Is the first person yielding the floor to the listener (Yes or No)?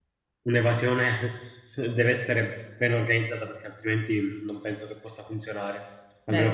No